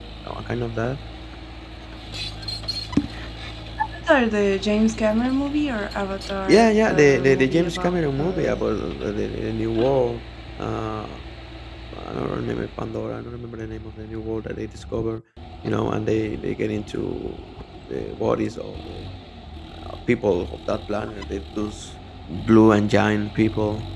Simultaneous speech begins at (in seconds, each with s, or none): 6.5 s